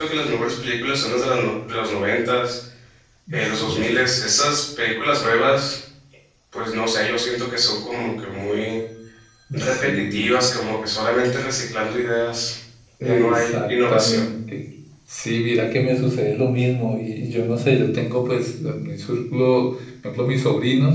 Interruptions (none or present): present